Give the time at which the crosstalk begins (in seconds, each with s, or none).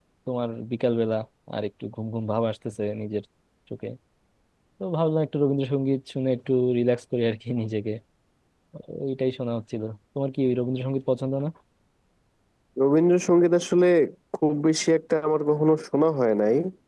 none